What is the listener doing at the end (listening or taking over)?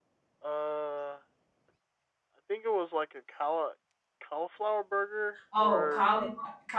taking over